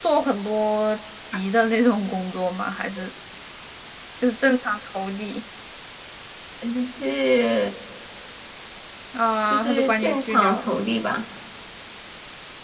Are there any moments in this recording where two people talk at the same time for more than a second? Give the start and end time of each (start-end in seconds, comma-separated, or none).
9.5-10.7